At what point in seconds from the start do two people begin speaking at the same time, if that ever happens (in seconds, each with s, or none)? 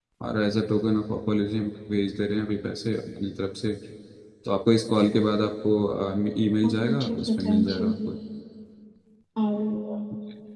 6.7 s